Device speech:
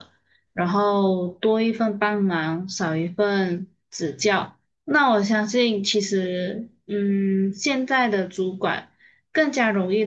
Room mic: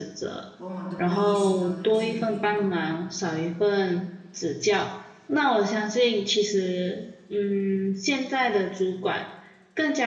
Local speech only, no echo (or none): 往往都不意识到那个是语言暴力，